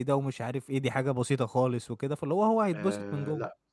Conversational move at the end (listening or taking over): taking over